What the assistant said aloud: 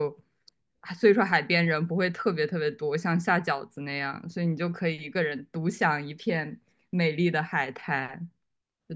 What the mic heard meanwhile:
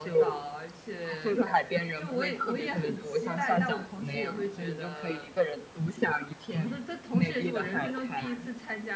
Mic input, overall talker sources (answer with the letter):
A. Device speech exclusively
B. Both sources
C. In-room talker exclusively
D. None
B